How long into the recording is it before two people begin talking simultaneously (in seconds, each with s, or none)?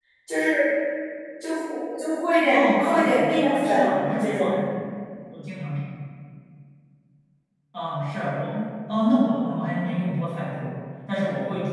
2.5 s